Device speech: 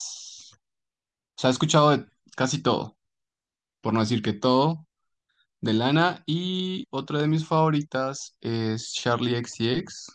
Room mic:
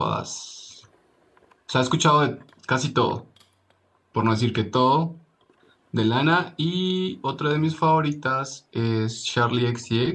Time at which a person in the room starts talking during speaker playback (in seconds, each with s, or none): none